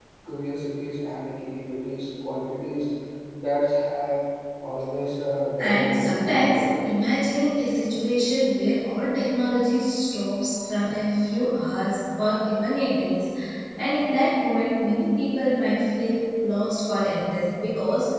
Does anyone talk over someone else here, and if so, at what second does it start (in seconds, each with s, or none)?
5.6 s